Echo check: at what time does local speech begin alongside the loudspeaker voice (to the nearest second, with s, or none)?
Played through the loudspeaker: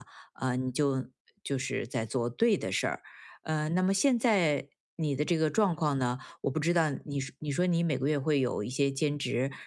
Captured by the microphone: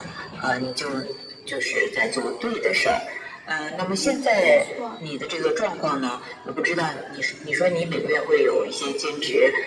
4 s